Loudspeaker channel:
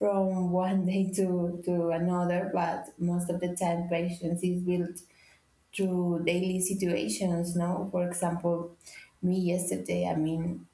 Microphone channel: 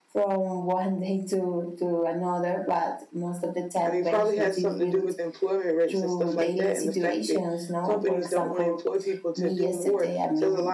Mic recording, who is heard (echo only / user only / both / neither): both